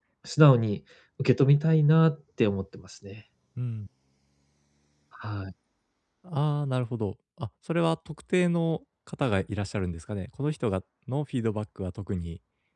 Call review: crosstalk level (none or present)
none